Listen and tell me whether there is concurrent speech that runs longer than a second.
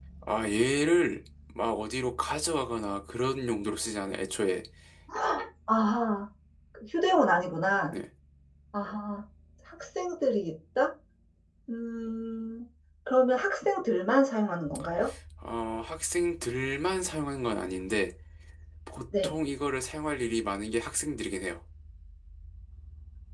No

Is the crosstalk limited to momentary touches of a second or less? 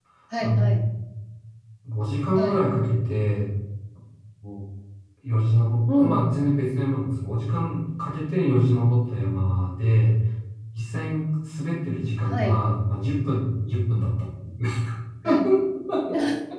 Yes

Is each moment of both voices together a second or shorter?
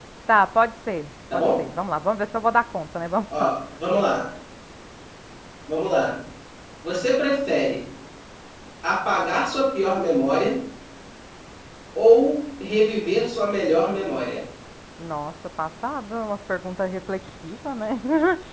Yes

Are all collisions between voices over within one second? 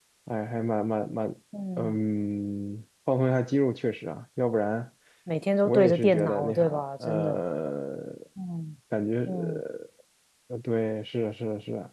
No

